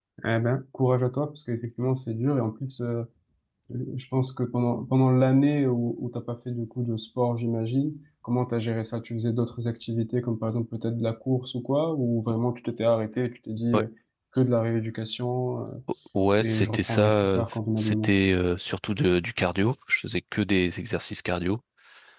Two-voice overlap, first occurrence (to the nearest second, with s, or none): 16 s